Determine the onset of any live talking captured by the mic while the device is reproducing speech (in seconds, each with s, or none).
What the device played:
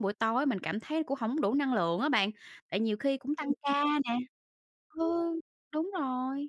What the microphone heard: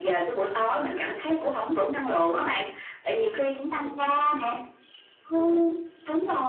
none